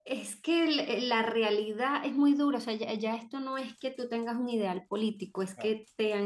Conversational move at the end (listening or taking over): listening